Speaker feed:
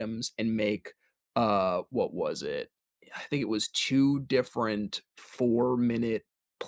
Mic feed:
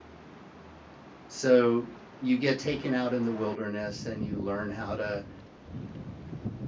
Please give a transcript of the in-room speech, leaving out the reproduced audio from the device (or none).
So, you get taken out in the wilderness, and you learn how to,